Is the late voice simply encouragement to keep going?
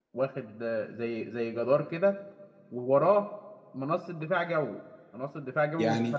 No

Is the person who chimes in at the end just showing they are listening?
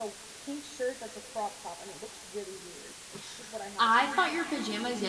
No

